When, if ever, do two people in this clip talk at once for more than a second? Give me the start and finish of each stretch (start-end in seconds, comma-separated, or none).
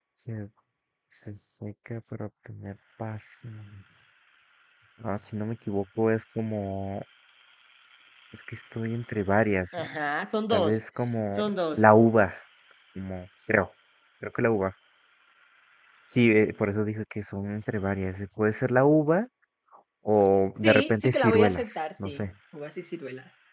20.6-22.3